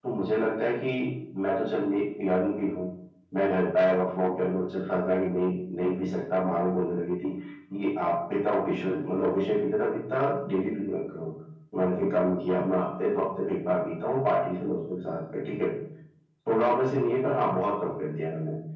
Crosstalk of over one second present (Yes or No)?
No